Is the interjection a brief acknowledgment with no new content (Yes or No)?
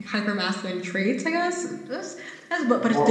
Yes